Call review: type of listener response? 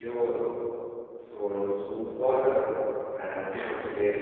taking over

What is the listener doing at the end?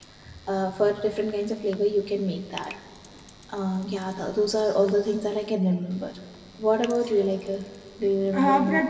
taking over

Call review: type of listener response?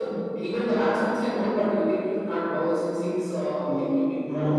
taking over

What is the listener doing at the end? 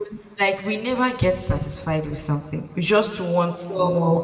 listening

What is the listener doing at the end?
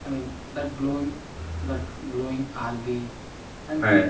listening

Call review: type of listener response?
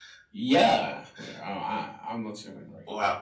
taking over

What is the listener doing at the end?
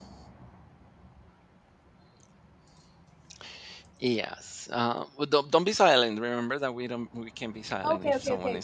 taking over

